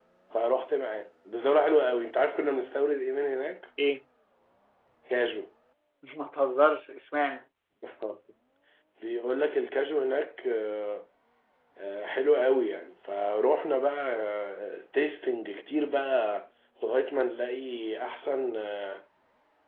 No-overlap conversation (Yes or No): Yes